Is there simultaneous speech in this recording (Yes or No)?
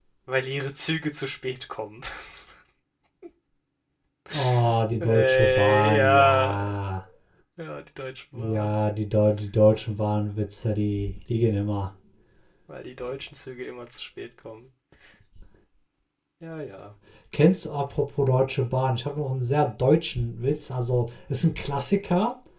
Yes